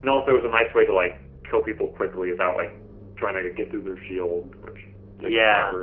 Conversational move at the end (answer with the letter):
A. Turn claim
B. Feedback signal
A